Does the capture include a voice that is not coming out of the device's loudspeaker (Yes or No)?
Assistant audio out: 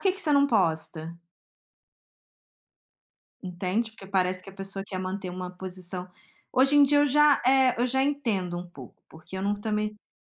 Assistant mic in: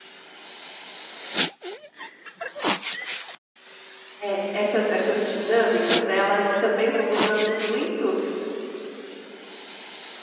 Yes